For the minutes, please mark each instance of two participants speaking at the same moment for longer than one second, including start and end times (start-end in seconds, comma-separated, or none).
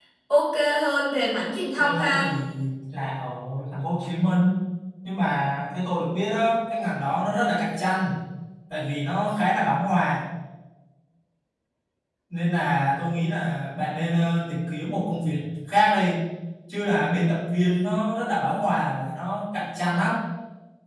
none